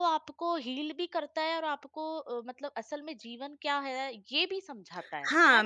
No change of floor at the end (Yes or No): No